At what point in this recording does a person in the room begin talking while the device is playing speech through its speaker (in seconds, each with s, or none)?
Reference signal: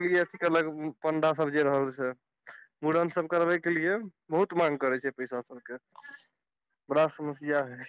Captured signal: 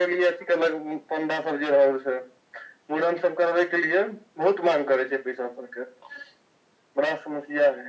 none